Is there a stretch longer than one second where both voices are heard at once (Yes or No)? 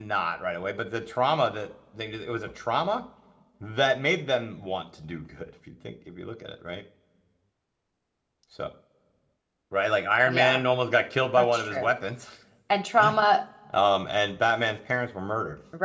No